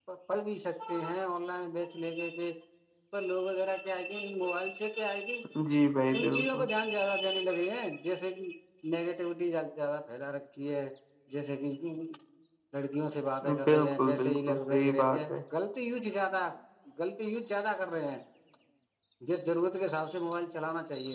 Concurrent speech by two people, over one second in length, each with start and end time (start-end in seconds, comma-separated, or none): 13.7-15.3